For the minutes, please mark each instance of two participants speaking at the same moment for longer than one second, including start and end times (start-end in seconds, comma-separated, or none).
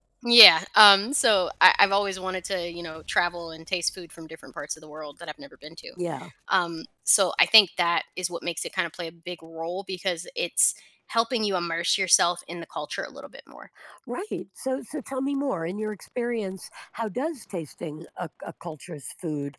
none